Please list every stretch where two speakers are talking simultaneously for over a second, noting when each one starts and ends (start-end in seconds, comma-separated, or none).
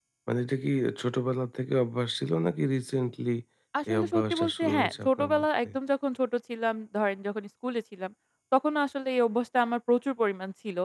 3.9-5.7